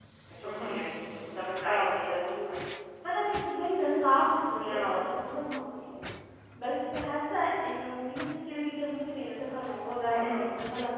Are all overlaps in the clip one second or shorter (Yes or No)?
Yes